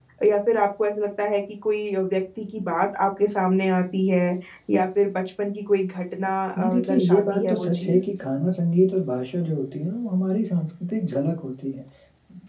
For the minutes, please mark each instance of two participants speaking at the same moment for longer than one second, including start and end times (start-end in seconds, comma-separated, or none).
6.6-8.1